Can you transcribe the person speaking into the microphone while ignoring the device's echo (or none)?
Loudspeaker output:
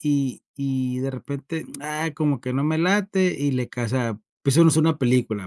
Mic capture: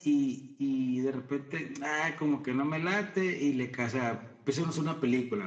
none